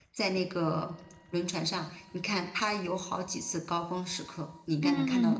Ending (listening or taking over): taking over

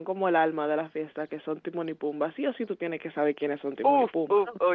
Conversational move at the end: taking over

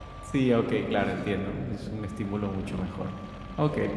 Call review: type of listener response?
listening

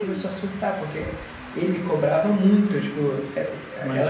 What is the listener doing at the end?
listening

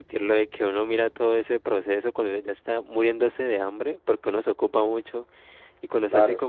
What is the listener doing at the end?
listening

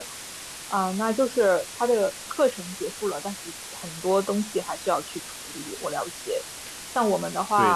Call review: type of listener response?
listening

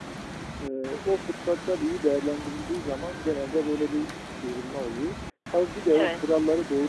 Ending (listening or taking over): listening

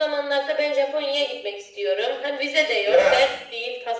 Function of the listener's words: listening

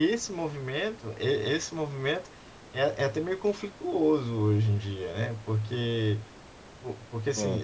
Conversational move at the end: listening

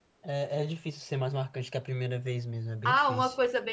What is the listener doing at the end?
taking over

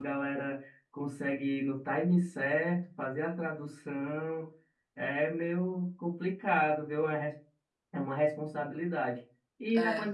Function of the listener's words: listening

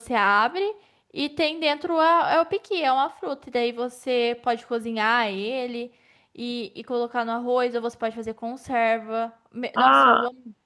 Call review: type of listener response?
taking over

